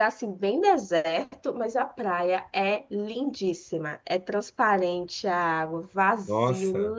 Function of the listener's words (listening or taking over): listening